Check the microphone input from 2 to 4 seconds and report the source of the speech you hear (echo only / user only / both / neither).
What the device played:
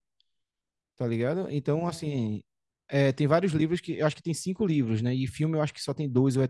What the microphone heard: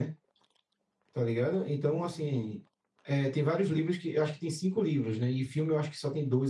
echo only